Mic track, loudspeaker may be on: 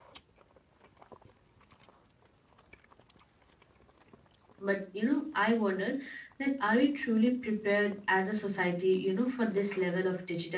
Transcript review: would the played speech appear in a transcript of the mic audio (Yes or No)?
No